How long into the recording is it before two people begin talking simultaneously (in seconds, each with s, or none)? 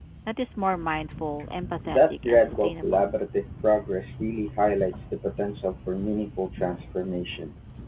1.8 s